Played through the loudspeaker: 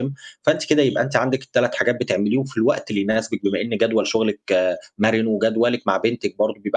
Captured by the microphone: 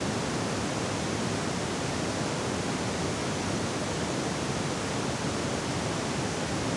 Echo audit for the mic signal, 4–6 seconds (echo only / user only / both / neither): neither